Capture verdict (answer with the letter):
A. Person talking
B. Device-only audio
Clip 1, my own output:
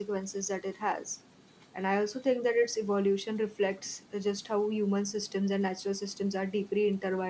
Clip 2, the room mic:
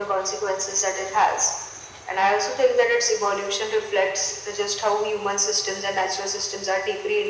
B